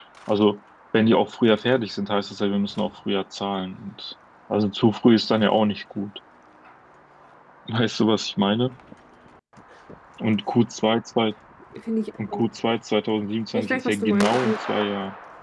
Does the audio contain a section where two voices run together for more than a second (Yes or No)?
Yes